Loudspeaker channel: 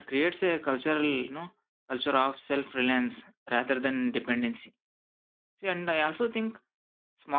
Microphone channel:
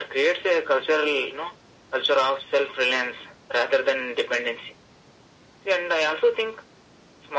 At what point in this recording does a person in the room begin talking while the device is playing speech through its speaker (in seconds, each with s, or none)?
none